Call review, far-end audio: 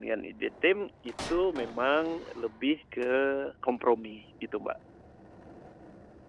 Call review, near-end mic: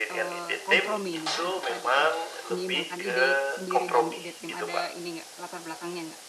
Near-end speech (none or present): present